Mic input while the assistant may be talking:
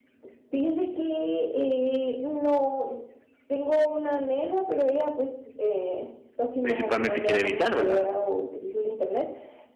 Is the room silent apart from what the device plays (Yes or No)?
No